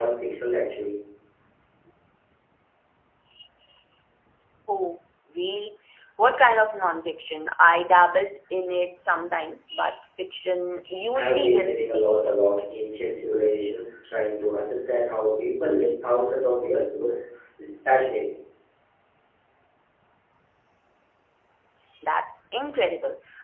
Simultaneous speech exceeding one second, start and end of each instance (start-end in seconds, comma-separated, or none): 11.1-12.3